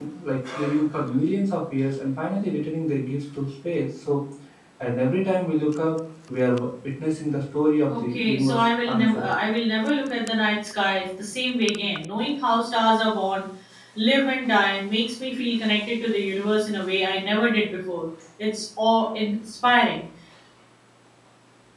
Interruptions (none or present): present